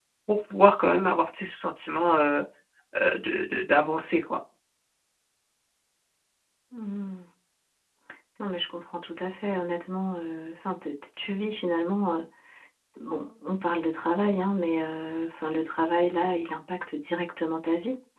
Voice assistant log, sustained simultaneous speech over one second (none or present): none